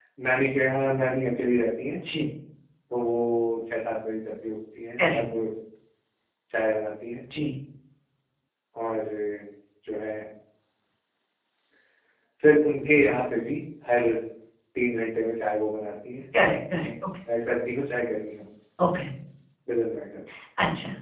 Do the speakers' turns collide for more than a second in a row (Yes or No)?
No